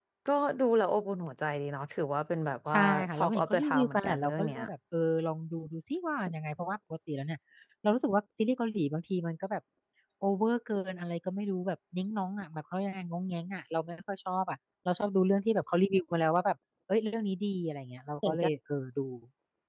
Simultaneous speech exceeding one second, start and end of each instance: 2.7-4.6

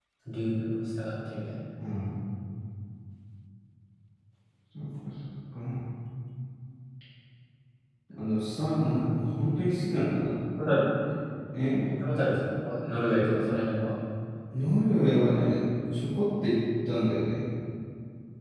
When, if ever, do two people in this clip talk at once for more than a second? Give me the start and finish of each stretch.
none

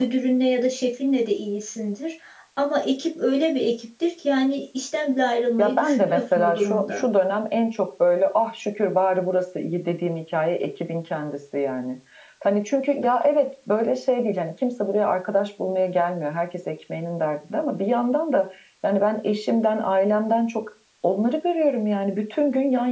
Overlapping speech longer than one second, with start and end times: 5.6-7.0

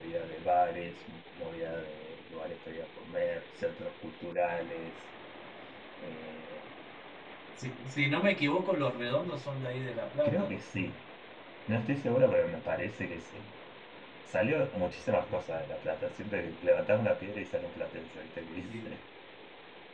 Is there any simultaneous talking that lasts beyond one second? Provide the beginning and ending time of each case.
none

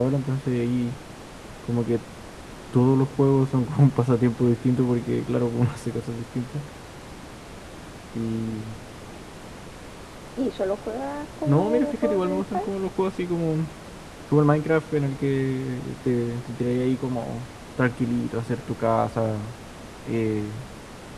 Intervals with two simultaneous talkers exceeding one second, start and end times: 11.4-12.7

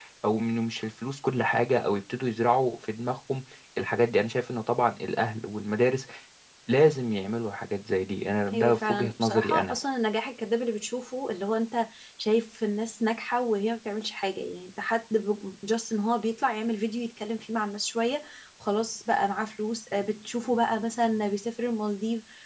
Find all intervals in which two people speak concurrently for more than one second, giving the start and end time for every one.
8.5-9.8

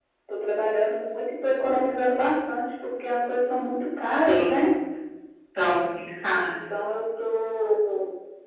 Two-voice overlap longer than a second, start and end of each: none

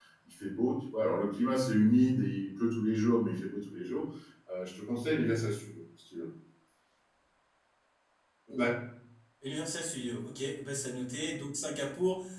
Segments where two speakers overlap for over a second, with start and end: none

